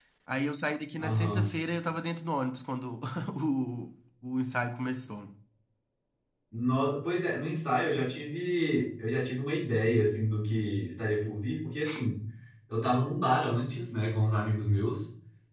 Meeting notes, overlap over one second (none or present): none